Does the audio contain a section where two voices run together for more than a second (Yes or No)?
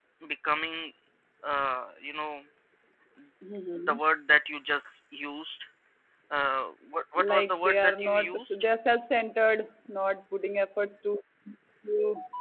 Yes